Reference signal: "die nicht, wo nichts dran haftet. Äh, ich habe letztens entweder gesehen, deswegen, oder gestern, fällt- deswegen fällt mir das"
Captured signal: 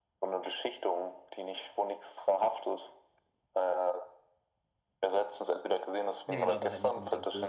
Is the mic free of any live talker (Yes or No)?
No